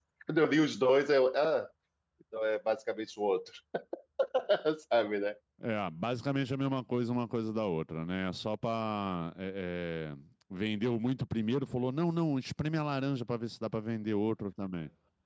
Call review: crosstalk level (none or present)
none